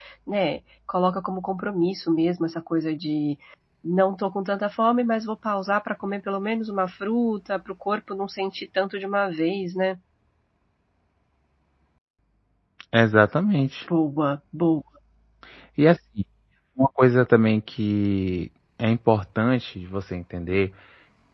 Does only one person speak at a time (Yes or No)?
Yes